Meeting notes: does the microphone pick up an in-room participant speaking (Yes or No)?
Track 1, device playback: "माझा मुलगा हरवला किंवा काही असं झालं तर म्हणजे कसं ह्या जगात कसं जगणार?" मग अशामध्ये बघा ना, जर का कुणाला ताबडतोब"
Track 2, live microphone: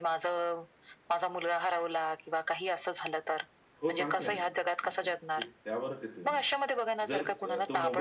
Yes